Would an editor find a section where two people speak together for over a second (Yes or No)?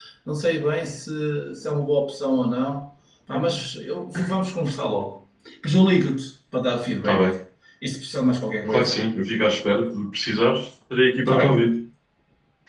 No